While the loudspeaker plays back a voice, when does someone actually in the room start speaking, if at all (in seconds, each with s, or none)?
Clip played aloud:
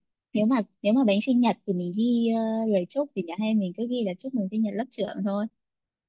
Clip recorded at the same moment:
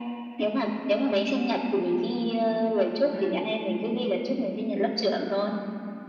3.1 s